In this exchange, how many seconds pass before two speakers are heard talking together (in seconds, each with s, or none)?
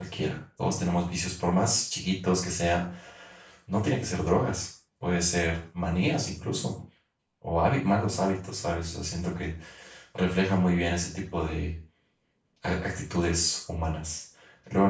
none